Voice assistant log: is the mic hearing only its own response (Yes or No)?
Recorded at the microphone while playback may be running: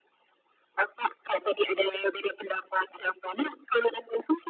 Yes